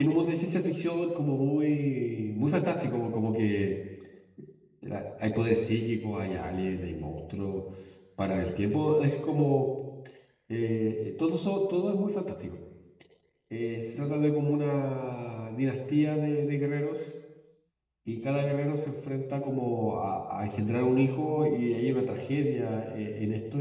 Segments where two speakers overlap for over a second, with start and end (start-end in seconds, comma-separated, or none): none